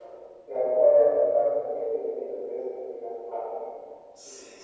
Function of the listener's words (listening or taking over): taking over